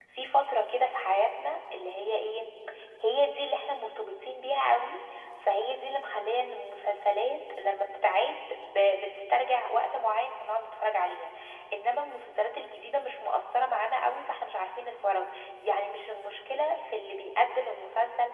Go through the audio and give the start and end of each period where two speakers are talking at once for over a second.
none

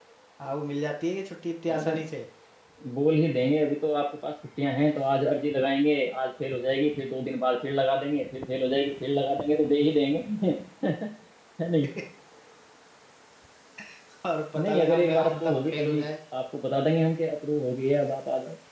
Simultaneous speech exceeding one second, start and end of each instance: 14.6-16.0

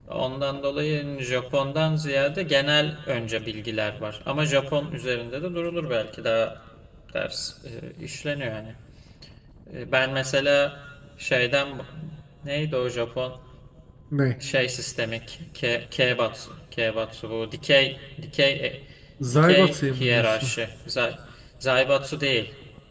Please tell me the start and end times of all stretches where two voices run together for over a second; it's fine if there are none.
19.3-20.5

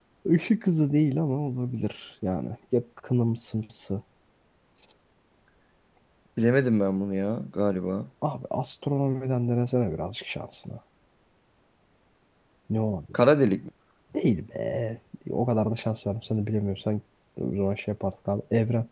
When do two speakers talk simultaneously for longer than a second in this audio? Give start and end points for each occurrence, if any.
none

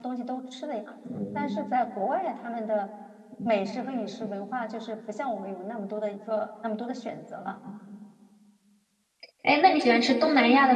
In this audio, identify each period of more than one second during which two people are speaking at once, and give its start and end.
none

